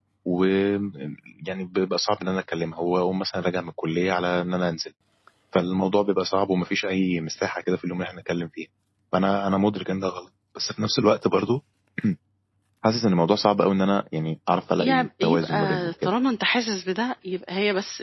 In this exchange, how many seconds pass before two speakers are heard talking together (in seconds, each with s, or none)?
14.8 s